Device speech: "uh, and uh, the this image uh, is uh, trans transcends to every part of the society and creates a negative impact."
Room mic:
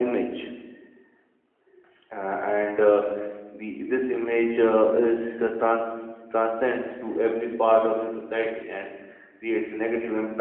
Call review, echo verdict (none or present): present